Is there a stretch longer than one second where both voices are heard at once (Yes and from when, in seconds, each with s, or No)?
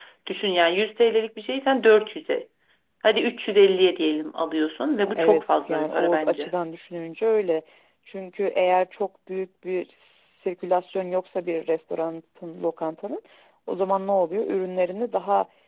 Yes, from 5.0 s